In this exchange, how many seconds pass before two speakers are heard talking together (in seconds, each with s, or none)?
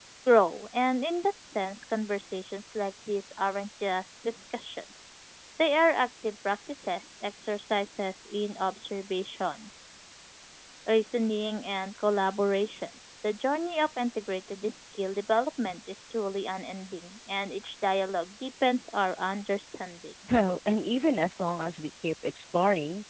none